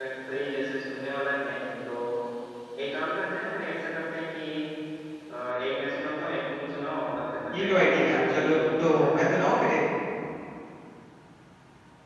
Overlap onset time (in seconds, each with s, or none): 7.5 s